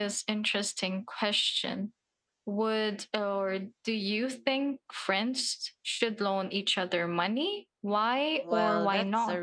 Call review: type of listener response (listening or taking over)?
taking over